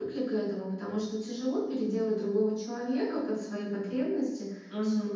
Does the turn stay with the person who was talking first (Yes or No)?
Yes